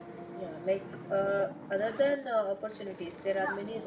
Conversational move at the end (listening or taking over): taking over